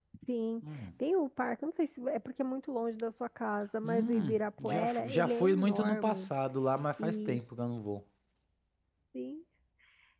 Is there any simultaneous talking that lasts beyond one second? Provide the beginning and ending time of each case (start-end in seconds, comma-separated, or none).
3.8-6.3